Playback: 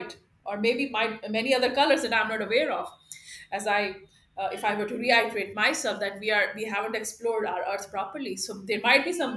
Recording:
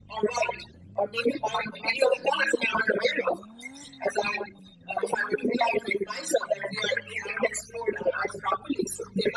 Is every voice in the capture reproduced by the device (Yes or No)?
Yes